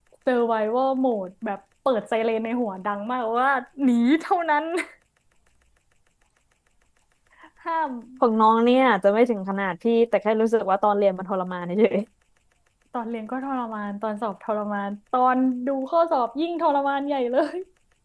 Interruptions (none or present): none